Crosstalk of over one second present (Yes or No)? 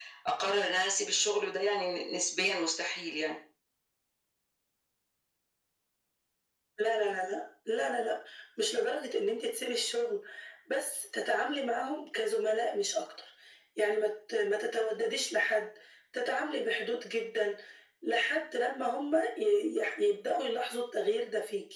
No